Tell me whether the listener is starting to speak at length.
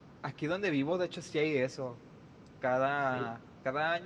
No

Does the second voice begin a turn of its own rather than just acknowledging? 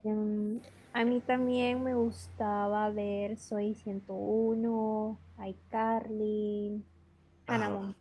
Yes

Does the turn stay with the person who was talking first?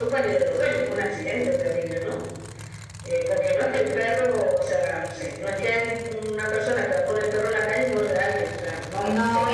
No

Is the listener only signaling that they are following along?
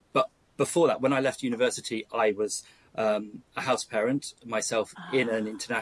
Yes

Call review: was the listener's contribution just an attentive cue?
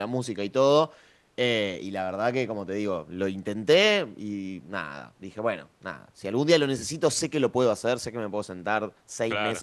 Yes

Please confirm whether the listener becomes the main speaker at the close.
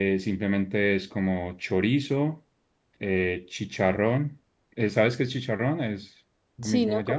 Yes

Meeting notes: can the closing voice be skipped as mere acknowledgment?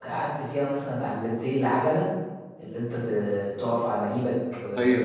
Yes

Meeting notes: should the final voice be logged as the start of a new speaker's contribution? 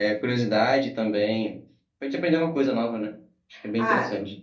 Yes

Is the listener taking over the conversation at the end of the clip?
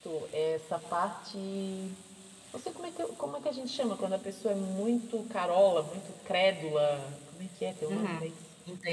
Yes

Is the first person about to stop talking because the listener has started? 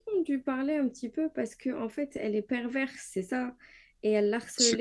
No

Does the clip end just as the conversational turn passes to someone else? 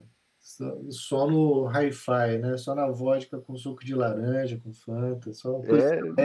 Yes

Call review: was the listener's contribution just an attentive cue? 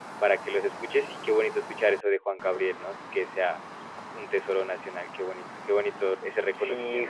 No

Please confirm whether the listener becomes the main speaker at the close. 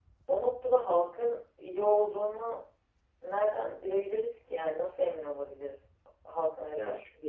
Yes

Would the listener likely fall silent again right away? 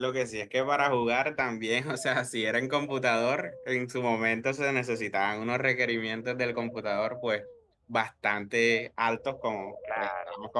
Yes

